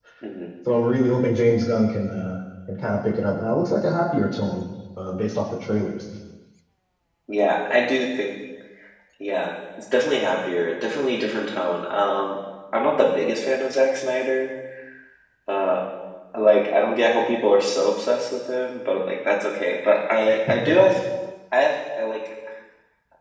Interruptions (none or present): none